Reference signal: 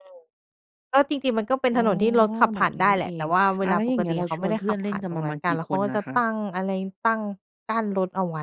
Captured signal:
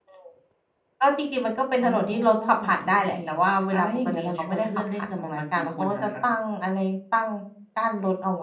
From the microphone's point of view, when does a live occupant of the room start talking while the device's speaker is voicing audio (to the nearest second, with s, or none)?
none